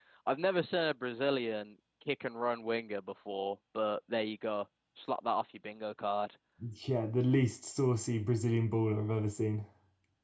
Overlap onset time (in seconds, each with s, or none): none